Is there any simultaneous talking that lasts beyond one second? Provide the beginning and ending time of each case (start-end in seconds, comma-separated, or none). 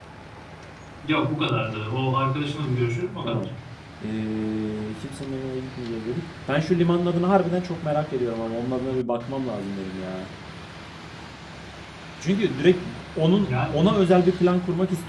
none